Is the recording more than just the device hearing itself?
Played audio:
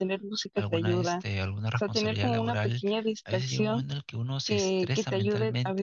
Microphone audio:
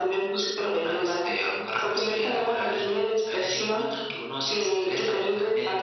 No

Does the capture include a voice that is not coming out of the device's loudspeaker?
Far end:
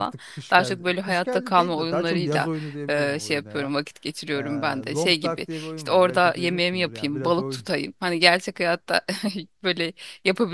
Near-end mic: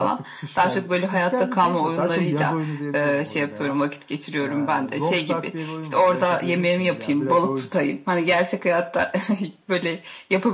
No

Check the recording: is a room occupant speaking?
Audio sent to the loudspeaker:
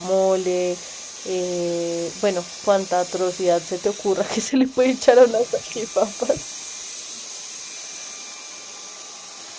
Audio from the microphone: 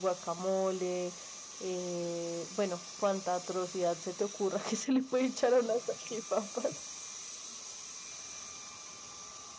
No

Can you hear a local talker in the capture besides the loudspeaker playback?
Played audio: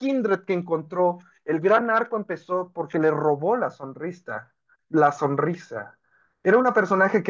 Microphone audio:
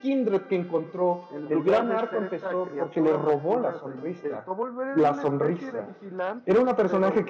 Yes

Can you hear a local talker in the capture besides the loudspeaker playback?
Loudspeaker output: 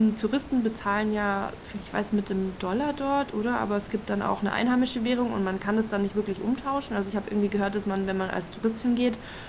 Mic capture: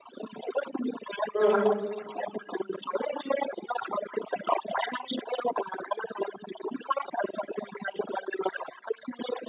Yes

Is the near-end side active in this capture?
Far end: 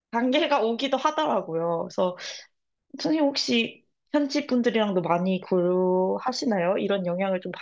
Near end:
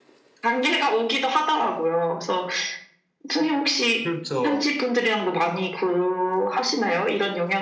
Yes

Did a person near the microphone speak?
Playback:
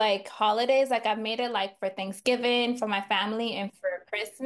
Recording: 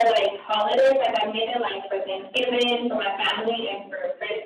No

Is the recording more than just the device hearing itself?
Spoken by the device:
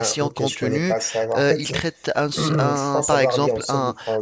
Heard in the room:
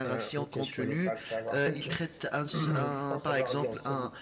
No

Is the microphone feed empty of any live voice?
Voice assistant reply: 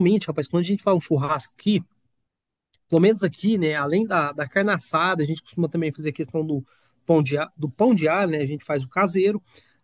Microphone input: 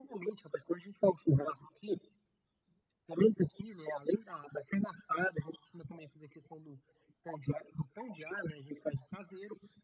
Yes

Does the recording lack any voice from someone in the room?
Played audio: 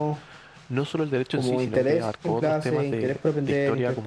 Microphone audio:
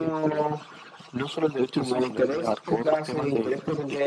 Yes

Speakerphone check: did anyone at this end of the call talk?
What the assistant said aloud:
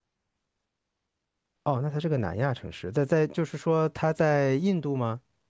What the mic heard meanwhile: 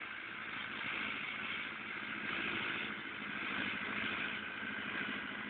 No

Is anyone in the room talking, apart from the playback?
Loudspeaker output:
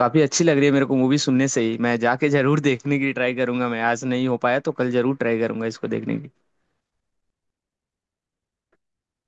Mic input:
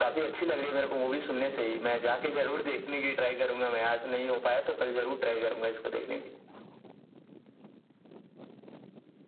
No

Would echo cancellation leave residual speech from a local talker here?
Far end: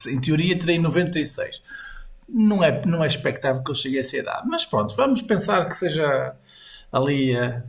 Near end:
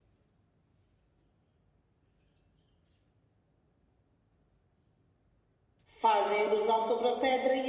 Yes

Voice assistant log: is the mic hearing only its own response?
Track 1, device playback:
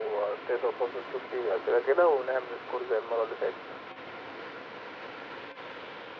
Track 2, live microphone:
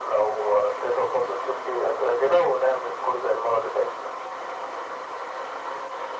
Yes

